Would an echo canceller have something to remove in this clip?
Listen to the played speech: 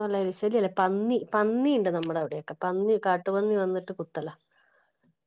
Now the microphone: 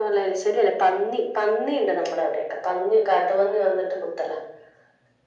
Yes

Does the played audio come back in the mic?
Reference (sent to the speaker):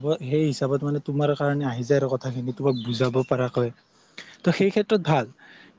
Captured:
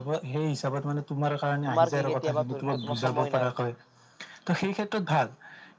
Yes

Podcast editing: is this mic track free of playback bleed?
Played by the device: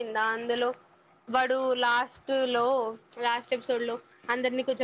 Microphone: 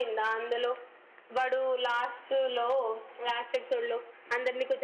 No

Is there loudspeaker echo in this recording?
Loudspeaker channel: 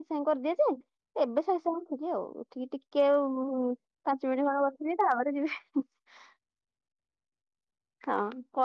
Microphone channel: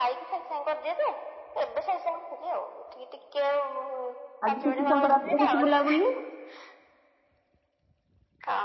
Yes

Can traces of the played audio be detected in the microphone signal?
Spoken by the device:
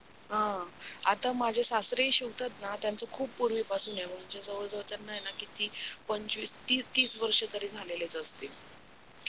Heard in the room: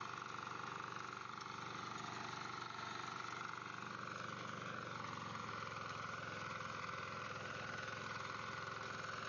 No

